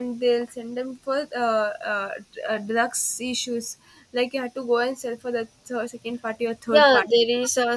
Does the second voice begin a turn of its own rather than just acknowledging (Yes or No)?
Yes